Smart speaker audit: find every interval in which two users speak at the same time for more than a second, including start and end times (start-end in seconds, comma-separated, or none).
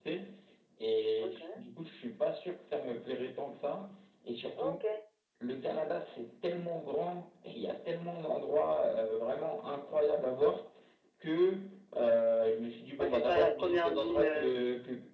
13.0-14.6